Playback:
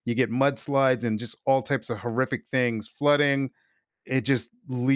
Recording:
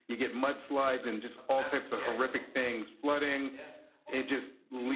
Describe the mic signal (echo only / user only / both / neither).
both